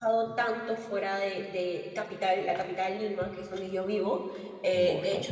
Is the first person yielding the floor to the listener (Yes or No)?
No